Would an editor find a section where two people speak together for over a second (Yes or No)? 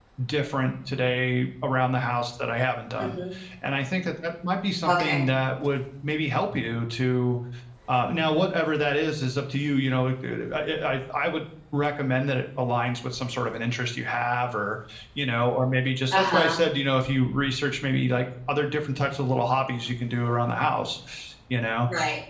No